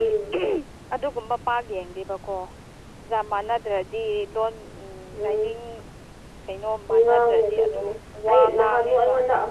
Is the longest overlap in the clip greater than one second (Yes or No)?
Yes